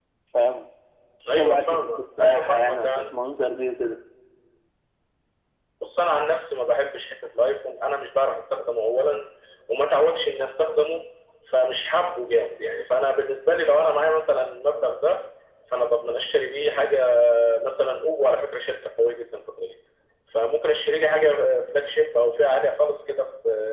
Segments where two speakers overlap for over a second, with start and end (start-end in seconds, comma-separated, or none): 1.4-3.0